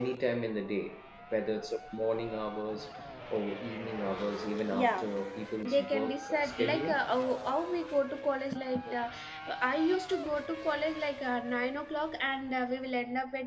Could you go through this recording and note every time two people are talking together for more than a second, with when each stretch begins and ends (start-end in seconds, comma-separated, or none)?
5.7-7.0